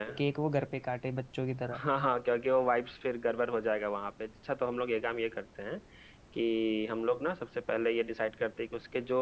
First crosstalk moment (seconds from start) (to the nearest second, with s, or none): none